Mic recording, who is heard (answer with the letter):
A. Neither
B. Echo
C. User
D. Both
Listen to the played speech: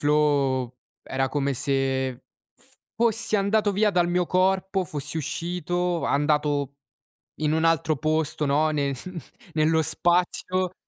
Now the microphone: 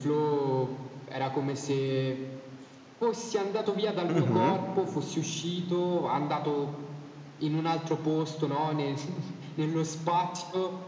D